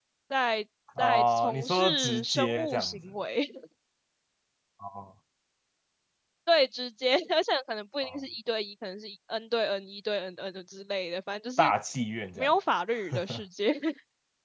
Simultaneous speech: Yes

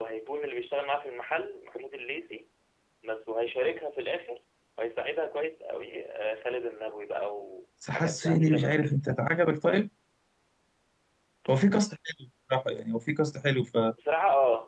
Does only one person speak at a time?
No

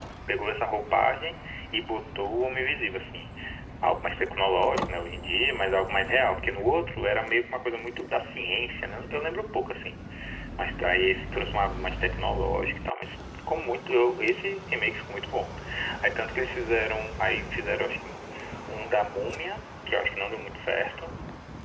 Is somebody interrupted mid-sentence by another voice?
No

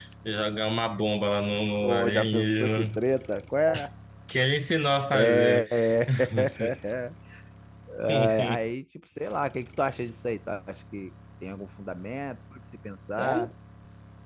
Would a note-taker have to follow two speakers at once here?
Yes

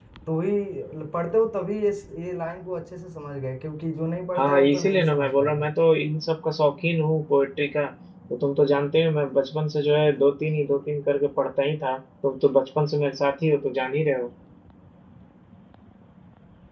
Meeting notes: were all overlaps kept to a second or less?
No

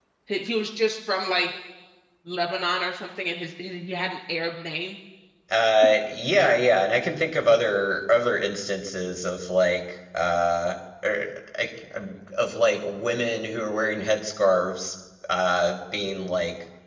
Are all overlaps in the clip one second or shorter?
Yes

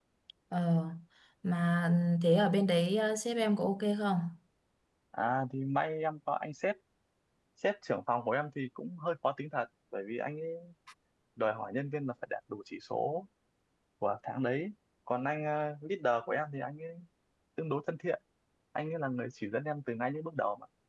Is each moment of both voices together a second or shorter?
Yes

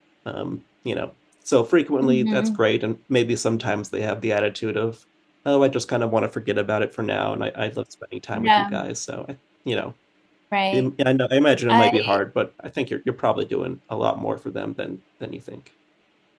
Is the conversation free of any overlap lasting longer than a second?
Yes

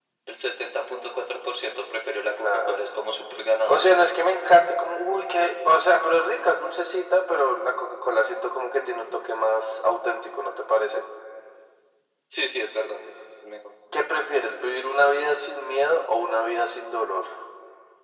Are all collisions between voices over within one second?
Yes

